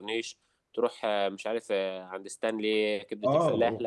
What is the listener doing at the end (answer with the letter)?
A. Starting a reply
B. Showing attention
A